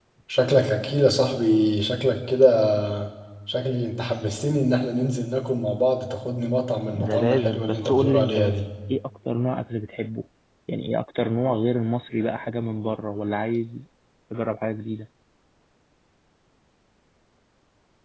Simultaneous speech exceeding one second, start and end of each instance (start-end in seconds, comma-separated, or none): 6.9-8.6